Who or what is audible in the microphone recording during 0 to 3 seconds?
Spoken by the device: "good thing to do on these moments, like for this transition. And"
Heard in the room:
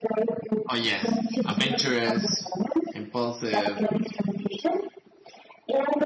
both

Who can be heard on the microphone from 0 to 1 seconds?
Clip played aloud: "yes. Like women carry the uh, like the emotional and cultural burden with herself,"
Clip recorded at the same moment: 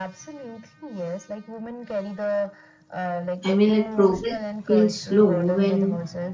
echo only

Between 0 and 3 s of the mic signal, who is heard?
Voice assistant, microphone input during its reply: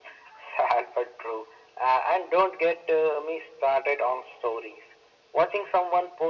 echo only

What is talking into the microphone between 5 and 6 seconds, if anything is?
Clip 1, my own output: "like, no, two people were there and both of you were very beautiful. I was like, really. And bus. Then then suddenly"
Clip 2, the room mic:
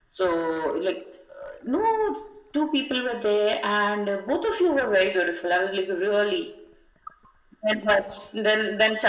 echo only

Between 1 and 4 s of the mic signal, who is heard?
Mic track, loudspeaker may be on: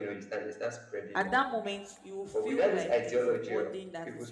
both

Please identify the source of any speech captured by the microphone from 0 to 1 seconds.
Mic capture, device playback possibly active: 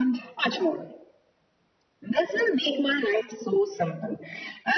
echo only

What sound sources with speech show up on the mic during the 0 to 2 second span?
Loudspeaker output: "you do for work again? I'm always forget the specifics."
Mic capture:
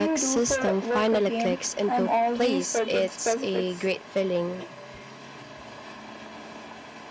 both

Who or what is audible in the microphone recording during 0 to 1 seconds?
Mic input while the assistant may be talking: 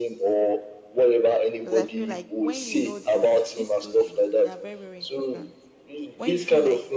echo only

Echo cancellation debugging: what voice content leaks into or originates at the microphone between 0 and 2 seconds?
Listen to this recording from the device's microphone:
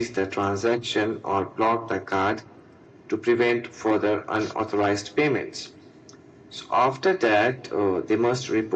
echo only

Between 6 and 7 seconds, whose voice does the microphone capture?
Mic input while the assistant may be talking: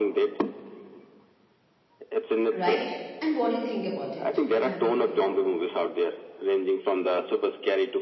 echo only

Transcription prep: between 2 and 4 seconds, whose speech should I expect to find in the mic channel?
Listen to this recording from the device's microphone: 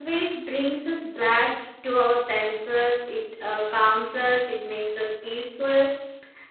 user only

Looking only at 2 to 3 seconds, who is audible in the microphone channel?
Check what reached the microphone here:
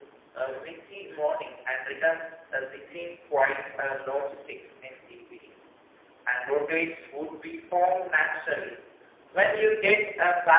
echo only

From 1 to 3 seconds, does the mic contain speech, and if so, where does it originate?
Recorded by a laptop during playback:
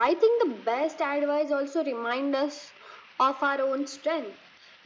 echo only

